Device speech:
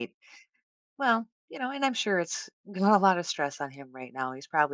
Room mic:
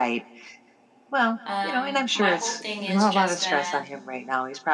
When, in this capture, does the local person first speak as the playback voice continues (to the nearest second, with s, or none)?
1 s